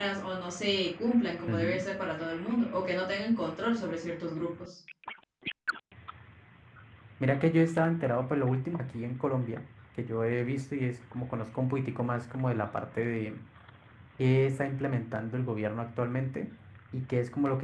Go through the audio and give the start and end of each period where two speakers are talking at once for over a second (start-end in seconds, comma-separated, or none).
none